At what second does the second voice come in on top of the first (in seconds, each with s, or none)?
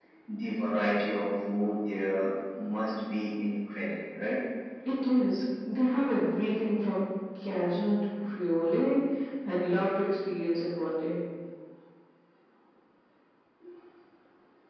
none